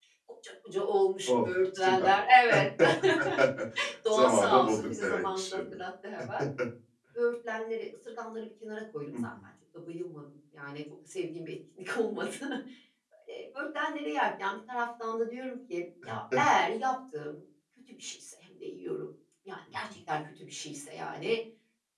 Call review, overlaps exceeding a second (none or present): present